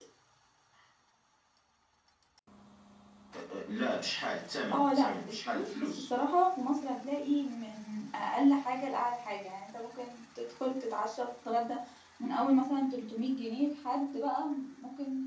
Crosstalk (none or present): present